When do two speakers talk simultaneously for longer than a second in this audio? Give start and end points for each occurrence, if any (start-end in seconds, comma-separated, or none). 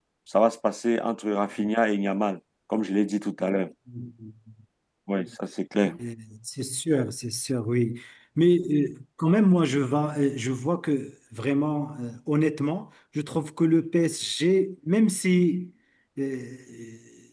none